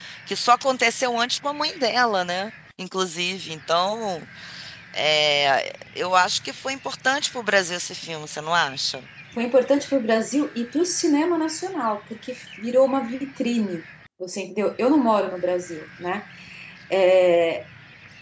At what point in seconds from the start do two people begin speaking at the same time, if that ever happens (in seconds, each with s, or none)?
none